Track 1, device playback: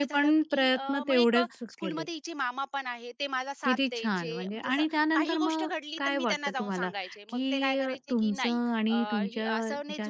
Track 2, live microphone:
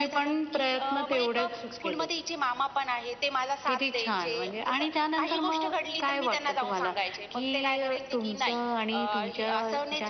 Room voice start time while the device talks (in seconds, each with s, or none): none